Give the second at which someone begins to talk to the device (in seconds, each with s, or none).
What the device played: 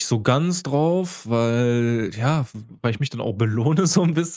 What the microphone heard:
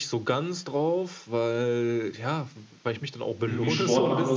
3.5 s